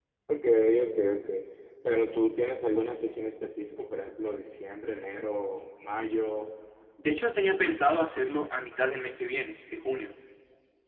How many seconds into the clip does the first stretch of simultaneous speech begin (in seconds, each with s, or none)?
none